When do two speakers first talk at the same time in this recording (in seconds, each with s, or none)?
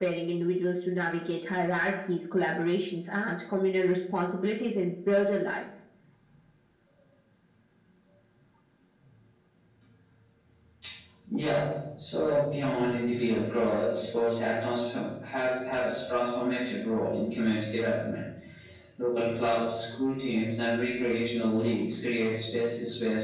none